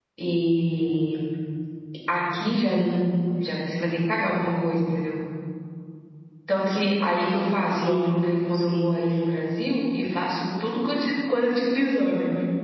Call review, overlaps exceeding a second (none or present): present